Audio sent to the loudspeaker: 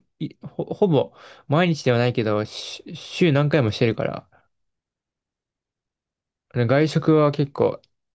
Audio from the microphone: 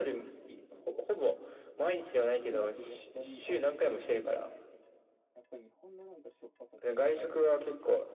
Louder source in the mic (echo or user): echo